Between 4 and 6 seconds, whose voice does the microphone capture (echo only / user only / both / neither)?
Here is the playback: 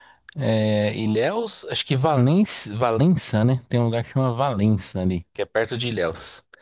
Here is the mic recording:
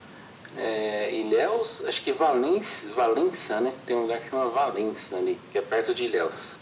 echo only